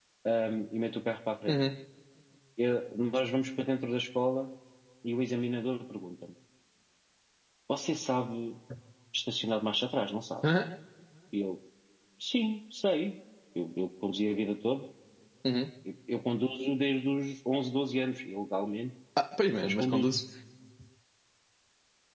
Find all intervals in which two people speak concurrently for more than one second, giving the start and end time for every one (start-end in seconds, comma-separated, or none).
none